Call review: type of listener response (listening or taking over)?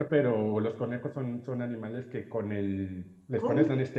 listening